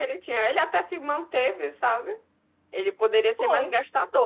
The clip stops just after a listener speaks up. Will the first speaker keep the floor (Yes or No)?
Yes